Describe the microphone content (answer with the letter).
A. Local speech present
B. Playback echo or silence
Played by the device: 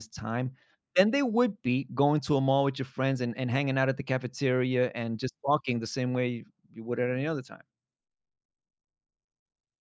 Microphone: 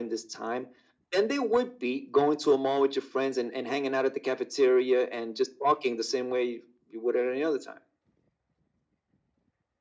B